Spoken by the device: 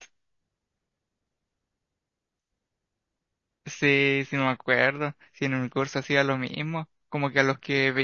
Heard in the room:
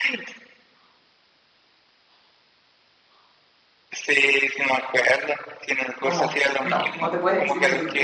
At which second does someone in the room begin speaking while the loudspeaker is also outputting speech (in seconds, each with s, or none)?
6.0 s